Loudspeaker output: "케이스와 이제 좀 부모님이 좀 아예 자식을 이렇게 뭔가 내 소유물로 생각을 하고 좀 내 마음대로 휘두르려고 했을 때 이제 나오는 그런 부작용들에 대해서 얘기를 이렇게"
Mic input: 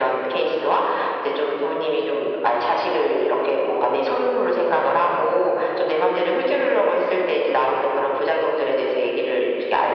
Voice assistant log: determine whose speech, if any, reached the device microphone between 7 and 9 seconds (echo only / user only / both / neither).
echo only